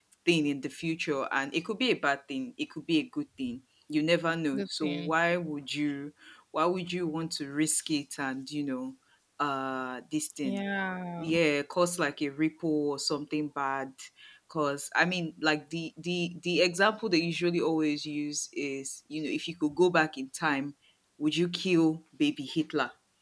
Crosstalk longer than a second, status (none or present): none